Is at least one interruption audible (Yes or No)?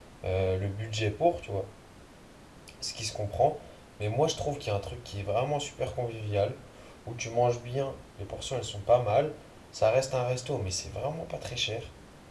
No